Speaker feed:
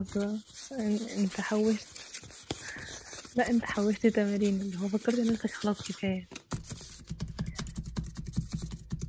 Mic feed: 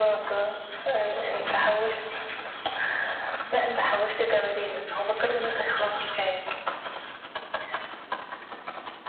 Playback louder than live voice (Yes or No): Yes